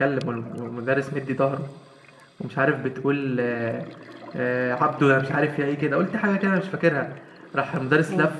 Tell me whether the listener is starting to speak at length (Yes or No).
No